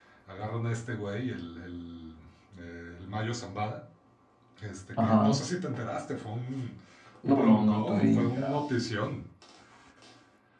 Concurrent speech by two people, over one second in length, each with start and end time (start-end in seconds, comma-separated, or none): 7.3-8.6